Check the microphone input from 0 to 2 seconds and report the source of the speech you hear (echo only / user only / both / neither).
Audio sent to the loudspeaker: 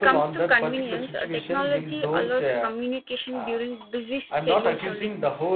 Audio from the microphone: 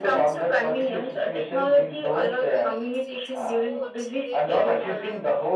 both